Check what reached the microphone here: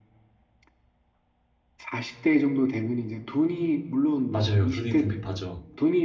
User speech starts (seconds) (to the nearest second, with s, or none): 4 s